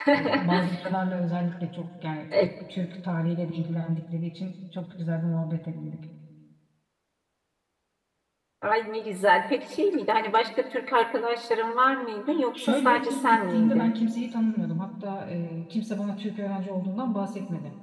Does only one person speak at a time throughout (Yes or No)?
No